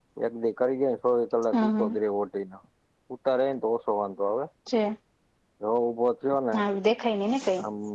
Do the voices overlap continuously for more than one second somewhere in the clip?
No

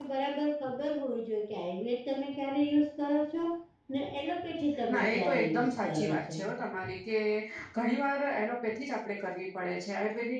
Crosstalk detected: Yes, from 4.9 s

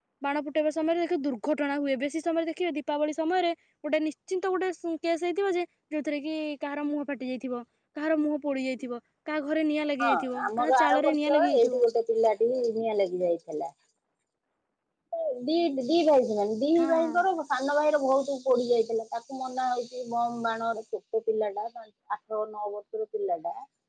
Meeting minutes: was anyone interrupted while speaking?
Yes, from 10.0 s

